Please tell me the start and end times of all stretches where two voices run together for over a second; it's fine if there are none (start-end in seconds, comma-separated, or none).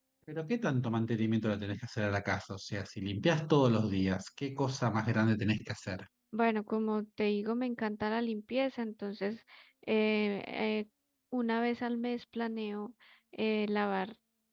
none